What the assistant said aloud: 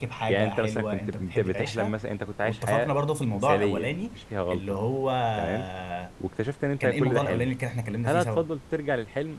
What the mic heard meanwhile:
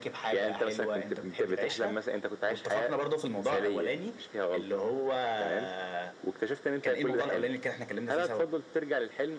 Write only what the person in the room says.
none

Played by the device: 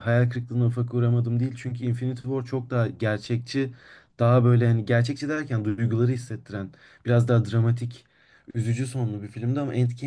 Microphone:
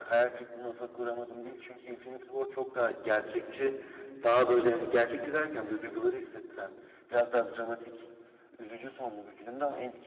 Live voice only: none

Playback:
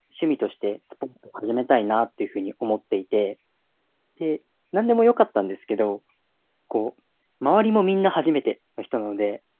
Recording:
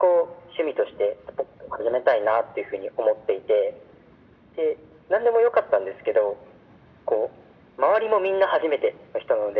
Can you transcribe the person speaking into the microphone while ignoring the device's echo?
none

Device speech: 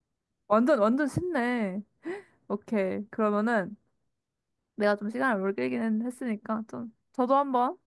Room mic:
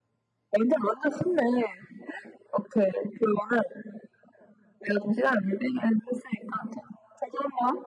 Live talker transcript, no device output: none

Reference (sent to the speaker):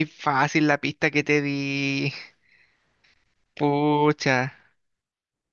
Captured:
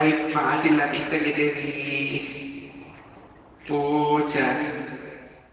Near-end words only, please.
none

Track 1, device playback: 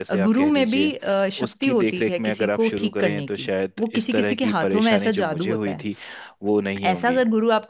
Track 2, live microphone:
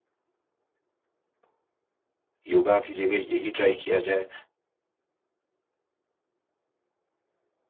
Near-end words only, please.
योगा की जगह यही ट्राई किया जाए

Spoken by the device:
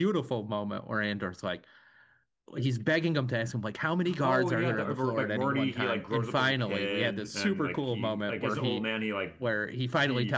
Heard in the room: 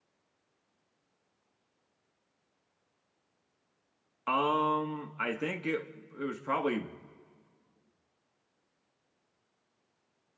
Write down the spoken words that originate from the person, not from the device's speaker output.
Um, I think it it was probably

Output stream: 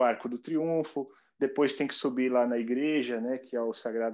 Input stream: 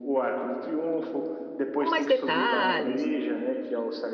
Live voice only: com mais detalhes.

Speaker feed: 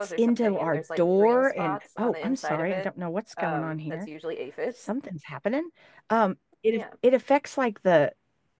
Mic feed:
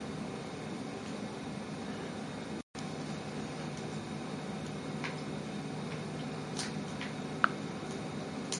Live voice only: none

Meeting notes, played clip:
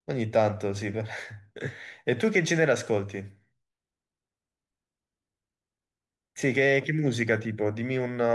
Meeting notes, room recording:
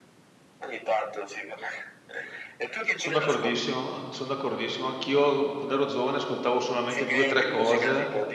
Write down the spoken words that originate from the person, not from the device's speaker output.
Sono d'accordissimo, sono d'accordissimo. Anch'io quando ero giovane ascoltavo solamente due o tre cose,

